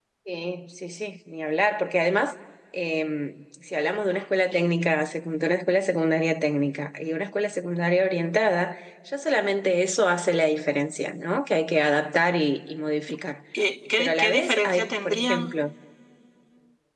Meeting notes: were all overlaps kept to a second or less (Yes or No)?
No